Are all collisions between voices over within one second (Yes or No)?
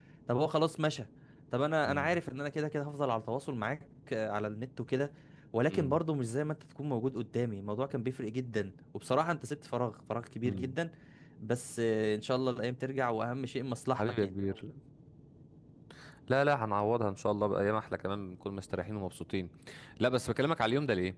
Yes